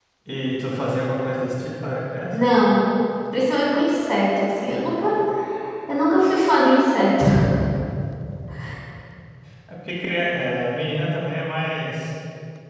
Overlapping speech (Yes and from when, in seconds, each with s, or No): No